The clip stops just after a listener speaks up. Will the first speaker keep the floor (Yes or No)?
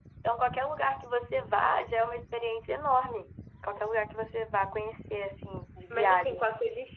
No